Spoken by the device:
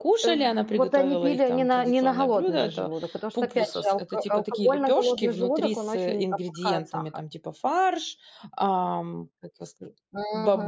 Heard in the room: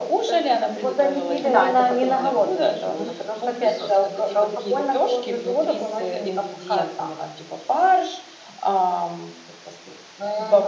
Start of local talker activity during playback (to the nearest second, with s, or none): 1 s